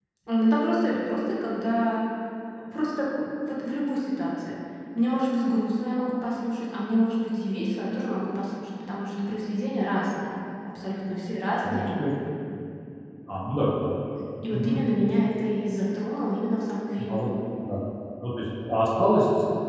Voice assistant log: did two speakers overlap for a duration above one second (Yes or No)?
No